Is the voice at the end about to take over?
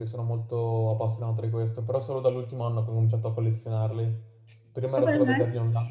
No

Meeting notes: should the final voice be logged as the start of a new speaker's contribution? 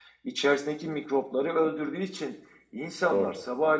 No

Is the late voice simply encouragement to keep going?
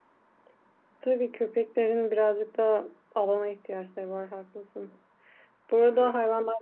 Yes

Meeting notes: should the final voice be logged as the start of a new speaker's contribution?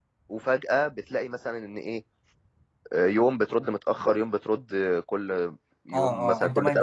Yes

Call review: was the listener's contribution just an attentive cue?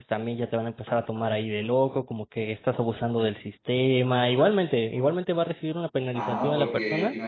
No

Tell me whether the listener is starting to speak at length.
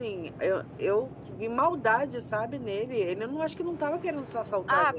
Yes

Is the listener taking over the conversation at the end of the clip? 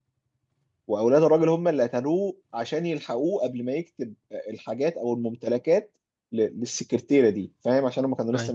No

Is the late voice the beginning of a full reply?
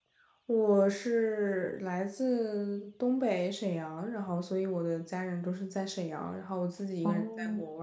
No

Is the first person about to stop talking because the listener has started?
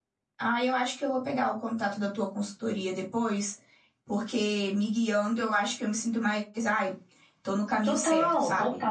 Yes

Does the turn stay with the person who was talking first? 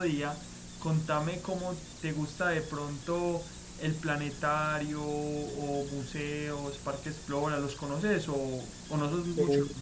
Yes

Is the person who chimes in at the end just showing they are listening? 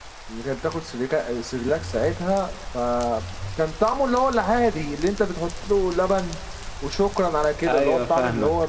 Yes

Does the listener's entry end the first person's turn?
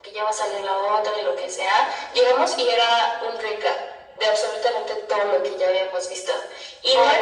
No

